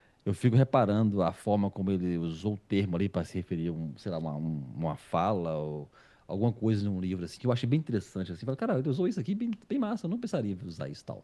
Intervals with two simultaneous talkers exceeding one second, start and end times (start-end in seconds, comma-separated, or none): none